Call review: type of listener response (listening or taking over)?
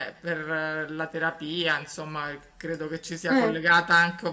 listening